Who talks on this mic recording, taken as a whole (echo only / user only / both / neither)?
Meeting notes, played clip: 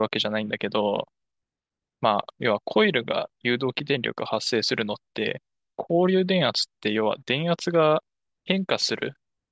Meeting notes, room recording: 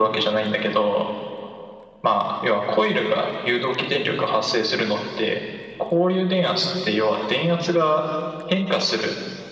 echo only